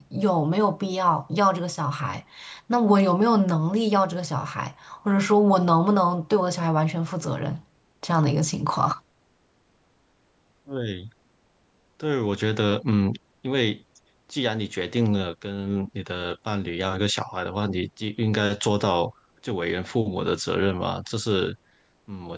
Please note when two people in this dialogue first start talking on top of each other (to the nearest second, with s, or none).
none